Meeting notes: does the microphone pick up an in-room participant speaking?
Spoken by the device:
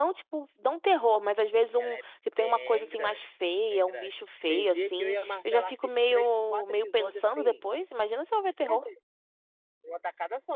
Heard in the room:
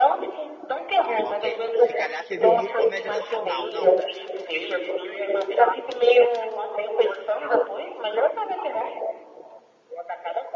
Yes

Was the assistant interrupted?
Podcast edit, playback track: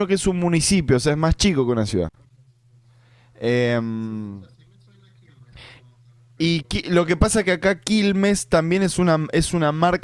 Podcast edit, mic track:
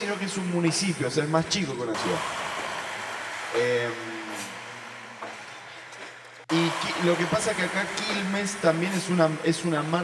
No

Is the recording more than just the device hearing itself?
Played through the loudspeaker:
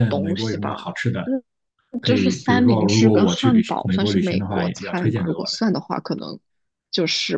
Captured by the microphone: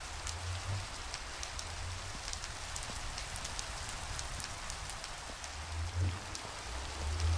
No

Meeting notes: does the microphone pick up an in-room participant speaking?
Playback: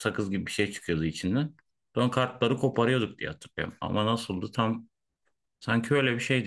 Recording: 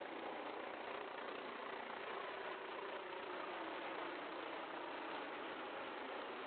No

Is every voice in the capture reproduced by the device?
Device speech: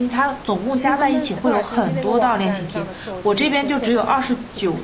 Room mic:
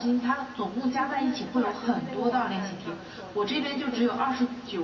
Yes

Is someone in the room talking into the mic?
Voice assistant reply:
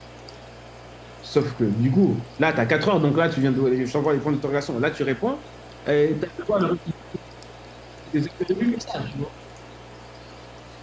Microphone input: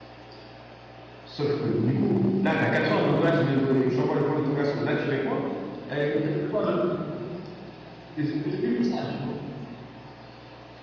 No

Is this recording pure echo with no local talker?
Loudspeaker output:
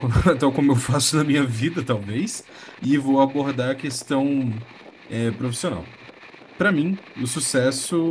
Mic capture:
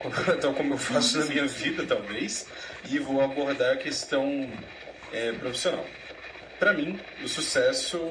No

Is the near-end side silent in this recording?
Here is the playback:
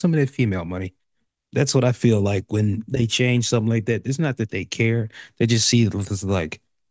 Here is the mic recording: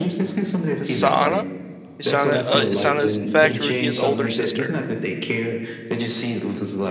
No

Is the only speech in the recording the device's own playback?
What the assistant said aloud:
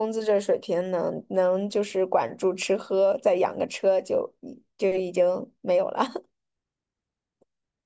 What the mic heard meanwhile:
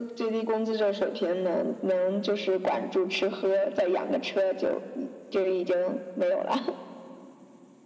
Yes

